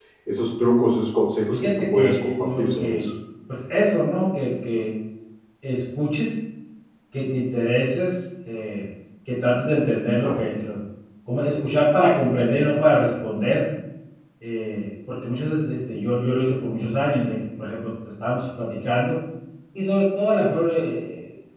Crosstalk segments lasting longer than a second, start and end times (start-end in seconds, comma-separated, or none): 1.5-3.1